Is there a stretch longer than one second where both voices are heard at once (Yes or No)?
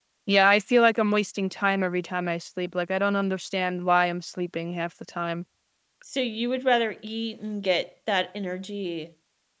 No